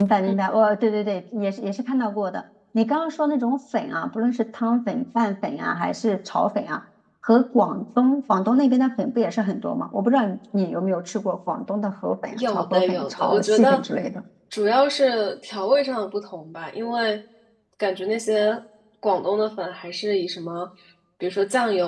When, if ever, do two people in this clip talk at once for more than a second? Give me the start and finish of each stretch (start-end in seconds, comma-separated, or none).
12.3-13.8